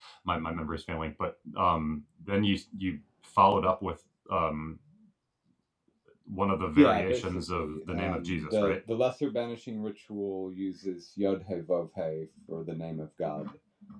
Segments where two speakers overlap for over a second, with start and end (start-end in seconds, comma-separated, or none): 6.8-8.7